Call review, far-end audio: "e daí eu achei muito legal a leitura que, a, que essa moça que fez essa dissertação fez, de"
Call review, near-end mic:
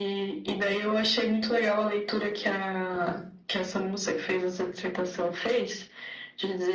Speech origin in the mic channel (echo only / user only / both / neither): echo only